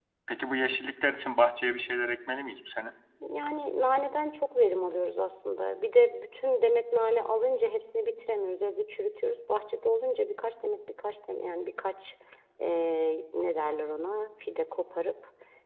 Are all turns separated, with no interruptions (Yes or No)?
Yes